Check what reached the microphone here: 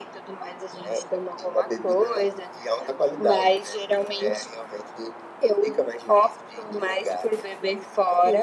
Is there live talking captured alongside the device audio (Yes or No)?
No